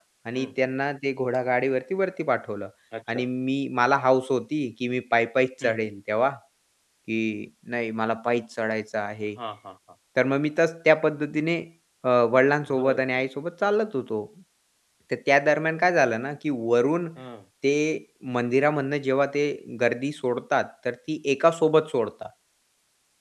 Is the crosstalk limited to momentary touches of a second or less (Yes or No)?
Yes